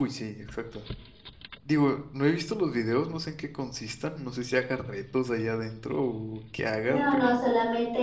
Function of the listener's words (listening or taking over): taking over